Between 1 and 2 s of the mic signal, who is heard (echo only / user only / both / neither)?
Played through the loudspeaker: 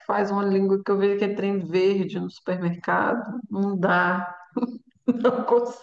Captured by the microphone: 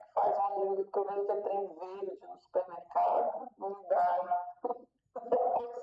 echo only